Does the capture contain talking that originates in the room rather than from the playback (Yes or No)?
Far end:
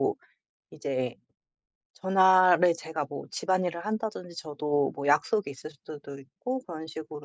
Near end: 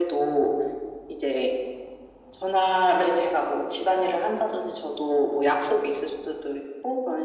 No